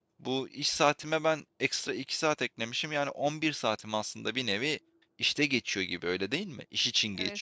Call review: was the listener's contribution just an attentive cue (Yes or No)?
No